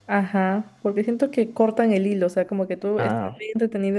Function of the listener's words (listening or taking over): listening